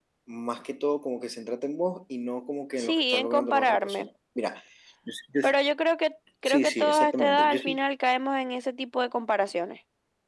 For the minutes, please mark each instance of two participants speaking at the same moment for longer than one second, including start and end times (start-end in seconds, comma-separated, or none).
2.8-4.1, 6.5-7.8